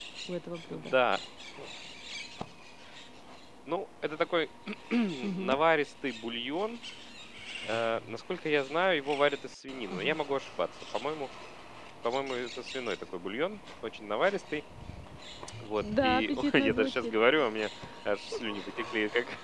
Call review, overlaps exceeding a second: present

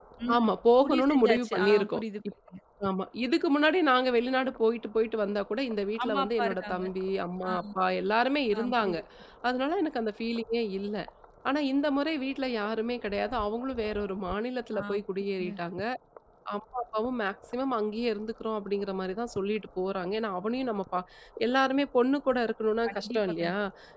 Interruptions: present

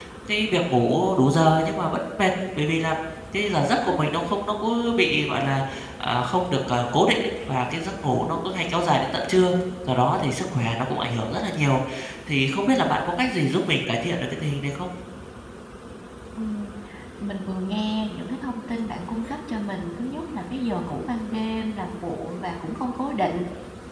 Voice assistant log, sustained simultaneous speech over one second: none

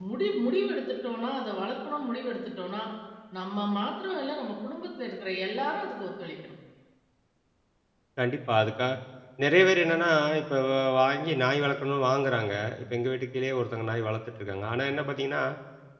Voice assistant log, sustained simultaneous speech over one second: none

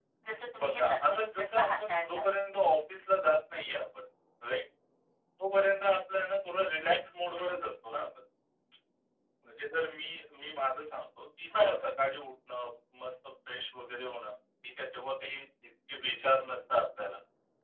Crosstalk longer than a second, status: present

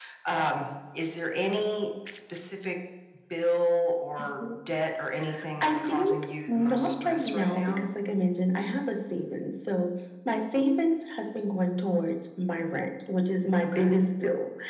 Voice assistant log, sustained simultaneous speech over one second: present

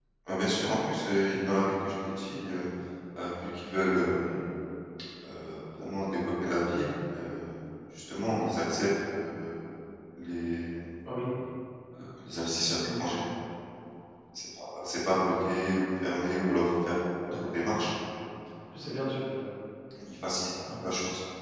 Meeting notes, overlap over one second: none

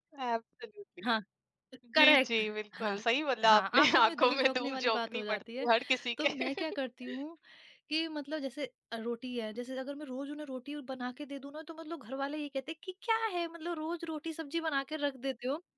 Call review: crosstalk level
present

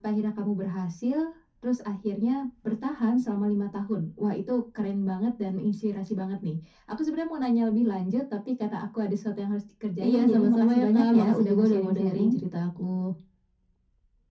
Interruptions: present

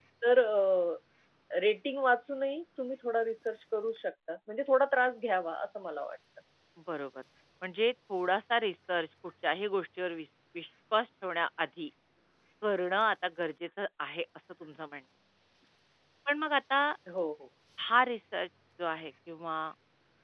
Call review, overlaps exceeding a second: none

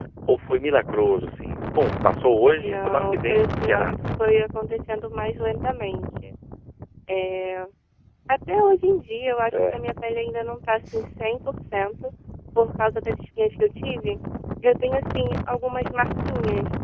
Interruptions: present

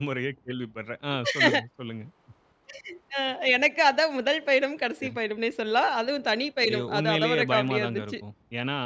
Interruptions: present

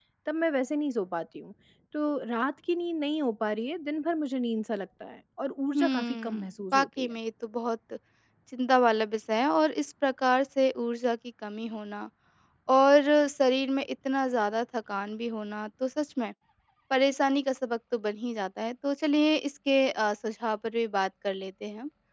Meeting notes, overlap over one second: present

